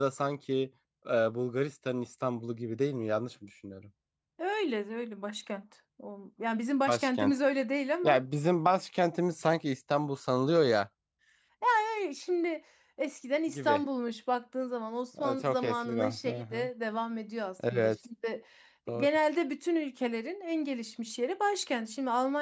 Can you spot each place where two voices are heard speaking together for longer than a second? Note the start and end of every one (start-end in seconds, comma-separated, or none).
15.2-16.7